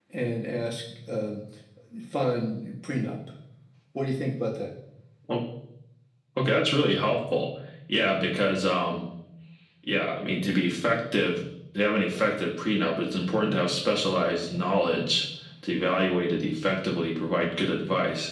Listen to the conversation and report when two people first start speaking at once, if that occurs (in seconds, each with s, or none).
none